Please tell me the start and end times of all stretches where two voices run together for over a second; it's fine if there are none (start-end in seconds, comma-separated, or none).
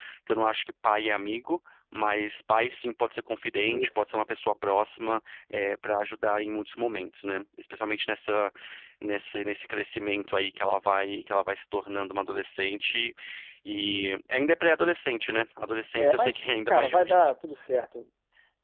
16.0-17.3